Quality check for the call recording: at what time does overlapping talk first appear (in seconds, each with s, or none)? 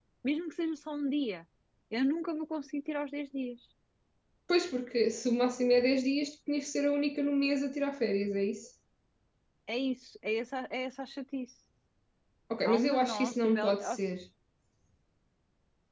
12.6 s